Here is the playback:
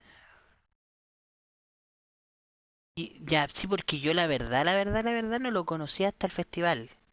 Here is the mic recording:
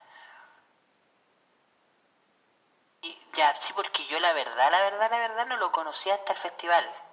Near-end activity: none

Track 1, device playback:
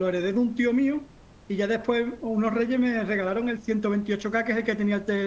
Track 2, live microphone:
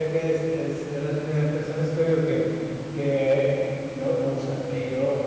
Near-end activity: present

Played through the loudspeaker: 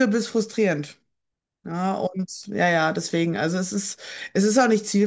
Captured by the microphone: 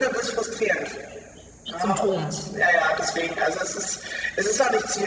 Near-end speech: present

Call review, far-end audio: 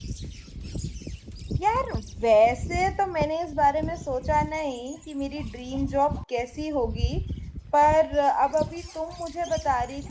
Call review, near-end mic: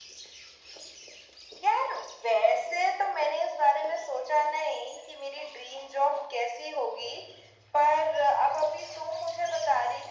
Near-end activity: none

